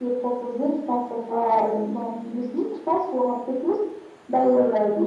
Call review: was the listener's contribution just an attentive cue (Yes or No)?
Yes